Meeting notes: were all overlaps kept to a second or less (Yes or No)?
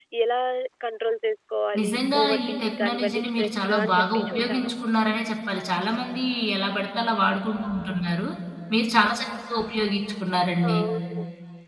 No